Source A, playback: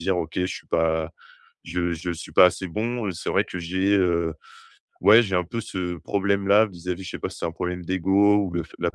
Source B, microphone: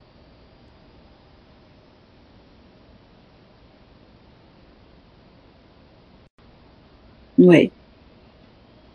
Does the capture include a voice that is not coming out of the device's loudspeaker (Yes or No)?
Yes